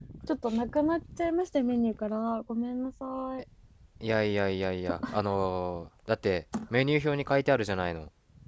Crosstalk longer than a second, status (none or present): none